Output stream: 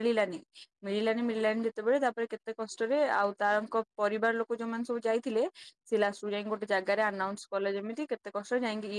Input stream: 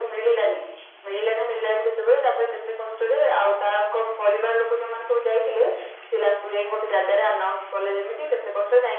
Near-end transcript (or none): none